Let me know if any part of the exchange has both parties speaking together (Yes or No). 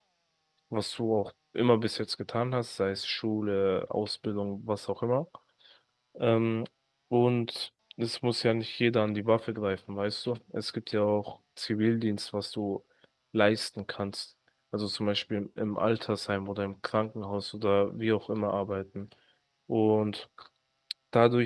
No